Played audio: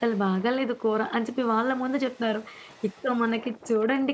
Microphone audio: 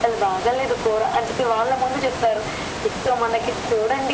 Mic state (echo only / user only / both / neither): echo only